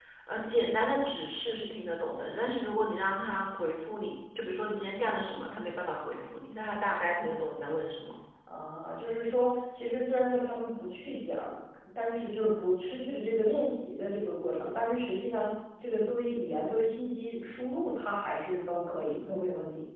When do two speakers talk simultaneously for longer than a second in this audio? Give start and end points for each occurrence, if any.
none

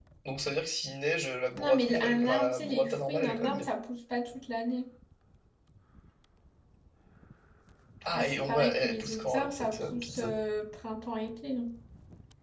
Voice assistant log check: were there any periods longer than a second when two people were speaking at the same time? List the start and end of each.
1.6-3.6, 8.1-10.2

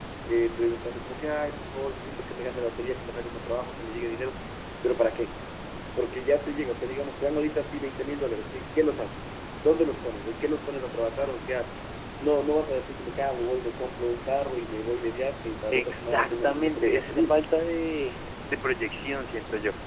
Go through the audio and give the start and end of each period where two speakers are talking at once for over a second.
15.7-17.4

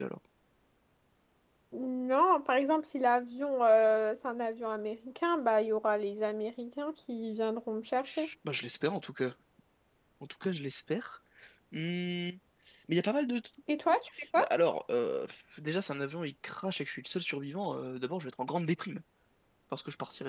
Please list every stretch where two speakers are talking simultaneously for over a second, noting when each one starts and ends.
none

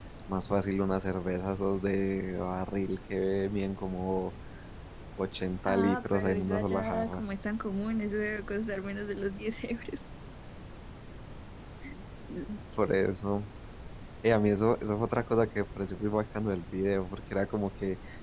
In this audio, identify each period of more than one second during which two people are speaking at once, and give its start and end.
5.7-7.2

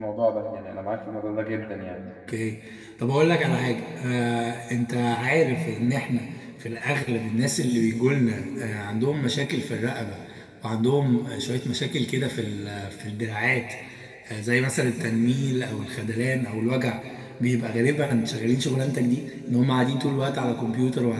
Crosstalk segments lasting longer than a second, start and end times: none

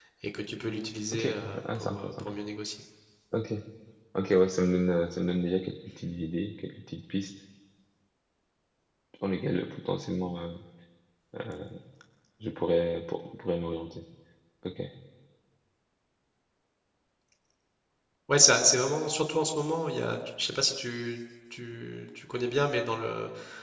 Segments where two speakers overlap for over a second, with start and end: 1.1-2.4

